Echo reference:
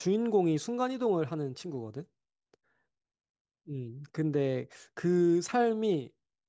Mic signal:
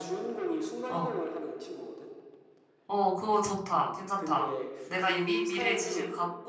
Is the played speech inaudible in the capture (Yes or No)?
No